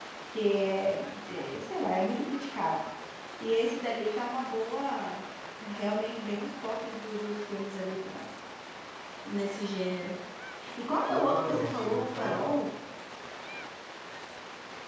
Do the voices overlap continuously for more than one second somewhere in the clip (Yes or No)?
Yes